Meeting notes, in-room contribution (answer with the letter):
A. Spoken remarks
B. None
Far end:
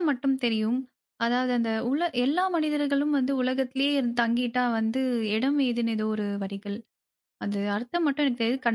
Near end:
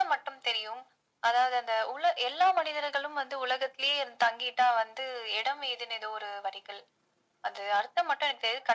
B